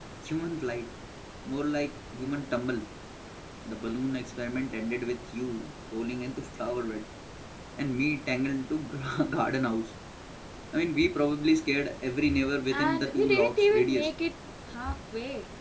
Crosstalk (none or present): present